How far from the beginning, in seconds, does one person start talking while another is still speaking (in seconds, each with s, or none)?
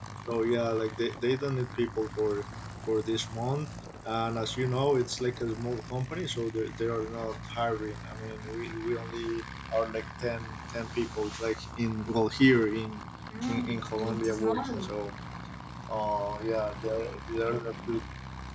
13.5 s